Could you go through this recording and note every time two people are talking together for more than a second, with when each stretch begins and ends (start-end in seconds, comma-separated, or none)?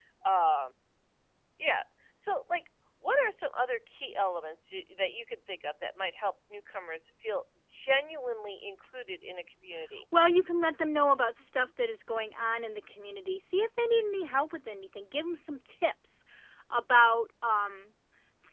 none